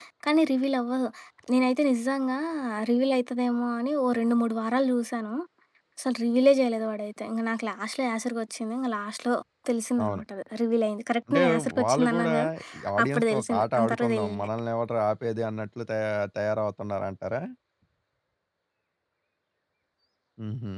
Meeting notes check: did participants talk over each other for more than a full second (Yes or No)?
Yes